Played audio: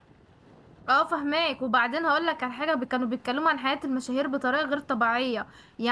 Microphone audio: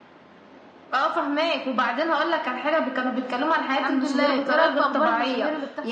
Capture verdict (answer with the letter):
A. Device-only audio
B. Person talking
B